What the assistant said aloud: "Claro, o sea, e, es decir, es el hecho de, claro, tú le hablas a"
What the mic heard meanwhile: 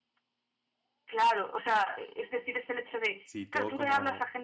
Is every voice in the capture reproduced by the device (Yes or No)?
No